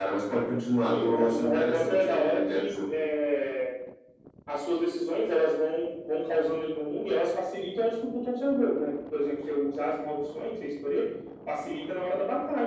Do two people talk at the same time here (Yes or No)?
Yes